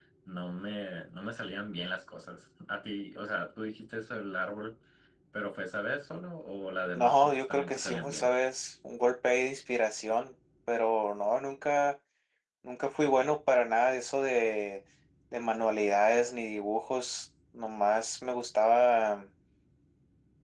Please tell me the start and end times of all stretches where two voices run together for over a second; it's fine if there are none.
7.0-8.3

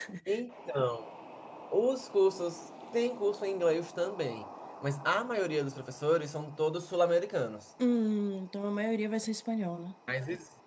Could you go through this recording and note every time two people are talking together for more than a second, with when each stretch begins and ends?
none

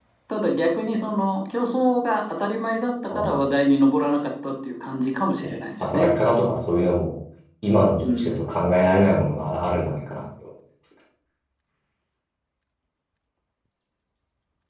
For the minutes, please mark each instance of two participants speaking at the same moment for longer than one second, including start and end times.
none

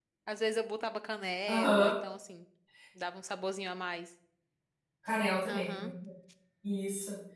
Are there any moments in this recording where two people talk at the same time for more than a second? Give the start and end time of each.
none

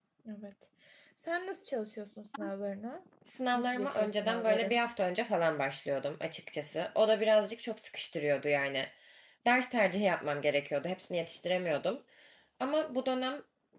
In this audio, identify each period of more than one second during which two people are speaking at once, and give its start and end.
3.5-4.8

